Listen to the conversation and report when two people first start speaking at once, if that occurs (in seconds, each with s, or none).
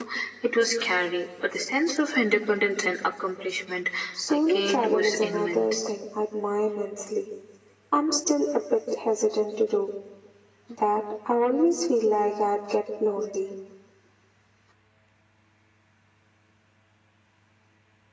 4.3 s